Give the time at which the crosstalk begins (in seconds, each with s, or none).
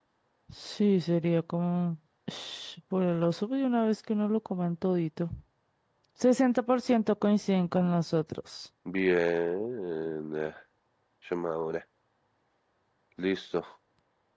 none